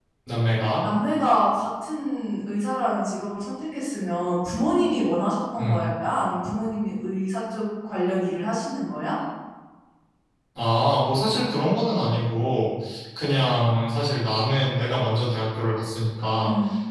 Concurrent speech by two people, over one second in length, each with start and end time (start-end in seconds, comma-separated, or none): none